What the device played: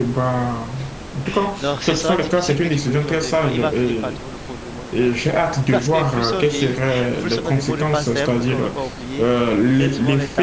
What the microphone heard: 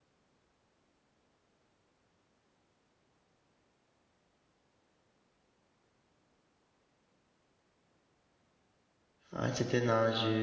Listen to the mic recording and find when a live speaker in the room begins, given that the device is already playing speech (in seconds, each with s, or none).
9.3 s